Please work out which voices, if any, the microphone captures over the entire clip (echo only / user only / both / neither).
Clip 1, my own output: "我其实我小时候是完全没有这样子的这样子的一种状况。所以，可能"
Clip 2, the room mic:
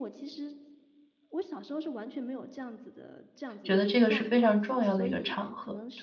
both